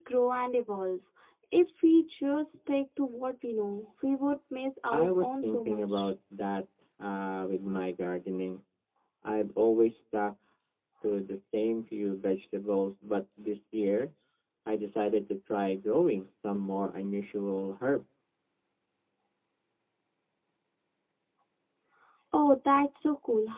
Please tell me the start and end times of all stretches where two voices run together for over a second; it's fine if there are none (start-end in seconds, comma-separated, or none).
4.9-6.1